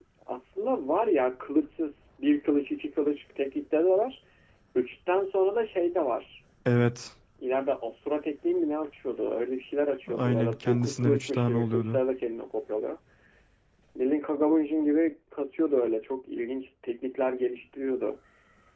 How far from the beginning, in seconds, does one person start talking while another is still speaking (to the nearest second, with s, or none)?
10 s